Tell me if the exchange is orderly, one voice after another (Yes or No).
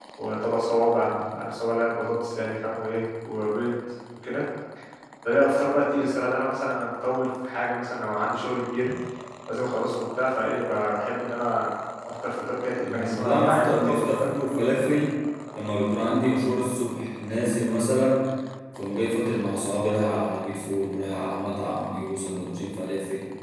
No